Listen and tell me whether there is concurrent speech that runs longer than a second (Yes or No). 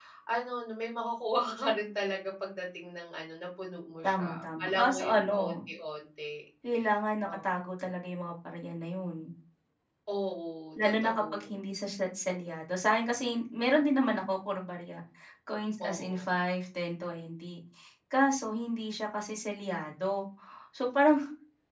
Yes